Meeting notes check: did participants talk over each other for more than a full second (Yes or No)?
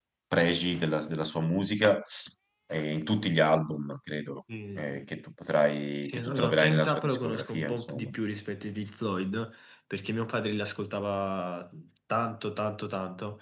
Yes